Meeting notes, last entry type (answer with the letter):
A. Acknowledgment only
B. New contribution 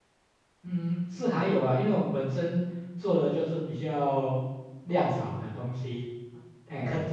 A